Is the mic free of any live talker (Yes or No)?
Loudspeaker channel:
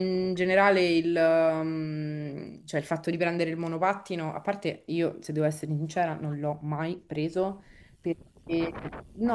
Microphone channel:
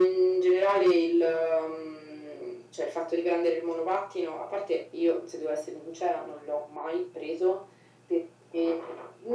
Yes